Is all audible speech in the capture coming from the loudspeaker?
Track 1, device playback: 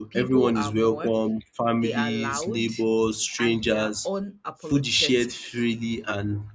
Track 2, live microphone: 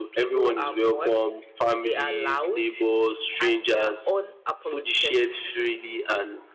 Yes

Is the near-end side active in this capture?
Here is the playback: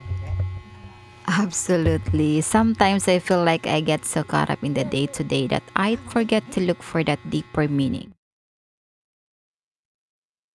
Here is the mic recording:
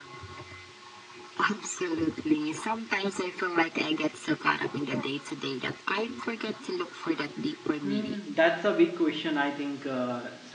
Yes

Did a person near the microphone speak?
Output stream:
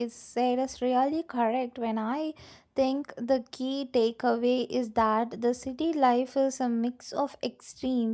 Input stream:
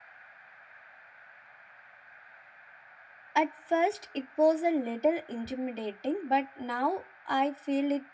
Yes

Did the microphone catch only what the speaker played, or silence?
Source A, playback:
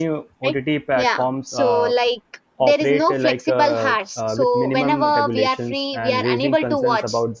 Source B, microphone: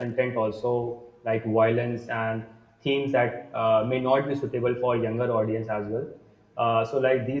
No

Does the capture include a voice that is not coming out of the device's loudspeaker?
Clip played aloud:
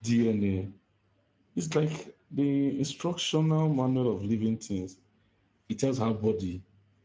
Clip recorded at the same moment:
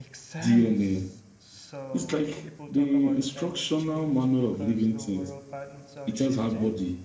Yes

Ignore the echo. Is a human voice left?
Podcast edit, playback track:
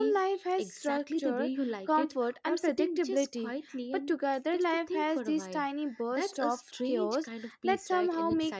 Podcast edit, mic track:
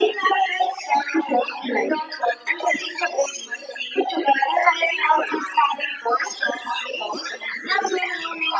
No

